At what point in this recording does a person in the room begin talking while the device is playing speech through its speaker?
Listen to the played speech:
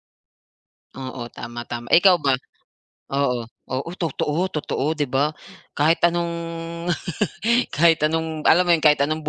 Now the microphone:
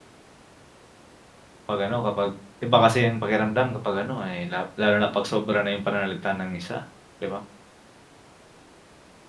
2 s

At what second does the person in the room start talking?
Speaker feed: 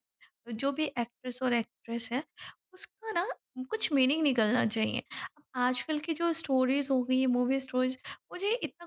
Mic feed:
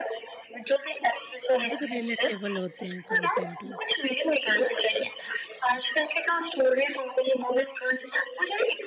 2 s

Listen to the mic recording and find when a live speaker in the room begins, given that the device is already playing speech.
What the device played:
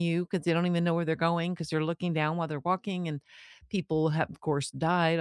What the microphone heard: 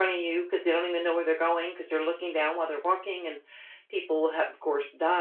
none

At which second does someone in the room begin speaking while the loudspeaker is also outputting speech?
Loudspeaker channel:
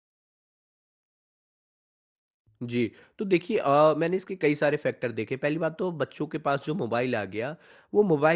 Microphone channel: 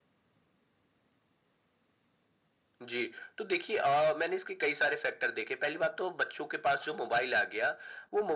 none

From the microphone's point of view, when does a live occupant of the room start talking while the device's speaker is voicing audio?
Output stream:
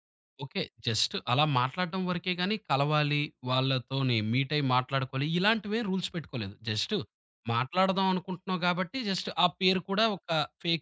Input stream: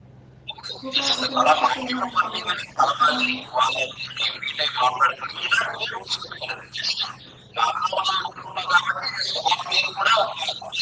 1 s

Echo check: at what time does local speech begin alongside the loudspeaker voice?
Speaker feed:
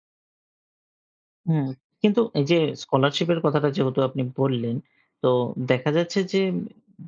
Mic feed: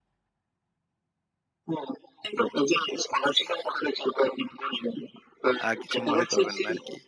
6 s

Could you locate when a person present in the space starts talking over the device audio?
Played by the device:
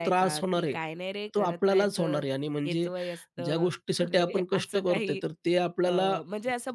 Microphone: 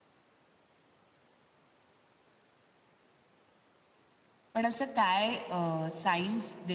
5 s

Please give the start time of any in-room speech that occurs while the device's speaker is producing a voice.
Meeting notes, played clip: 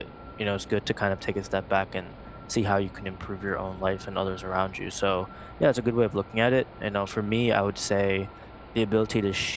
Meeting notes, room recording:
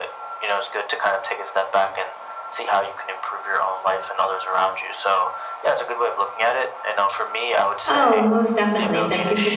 8 s

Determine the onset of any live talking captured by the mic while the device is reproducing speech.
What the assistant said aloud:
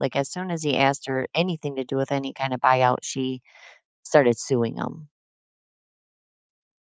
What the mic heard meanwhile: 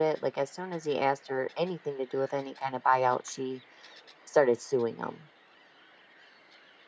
none

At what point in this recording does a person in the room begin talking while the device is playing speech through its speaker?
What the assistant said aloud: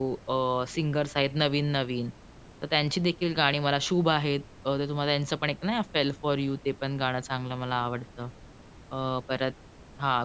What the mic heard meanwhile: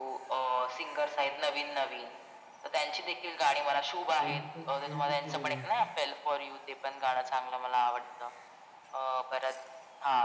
4 s

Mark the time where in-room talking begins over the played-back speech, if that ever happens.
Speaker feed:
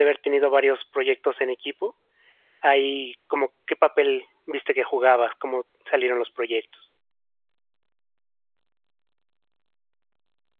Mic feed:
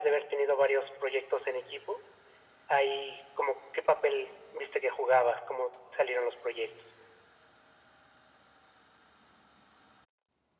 none

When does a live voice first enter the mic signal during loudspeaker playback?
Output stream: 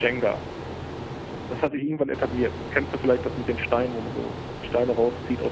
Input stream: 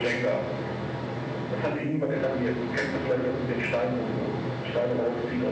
none

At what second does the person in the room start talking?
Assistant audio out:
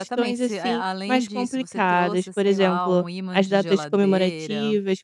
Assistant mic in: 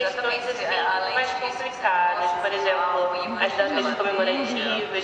3 s

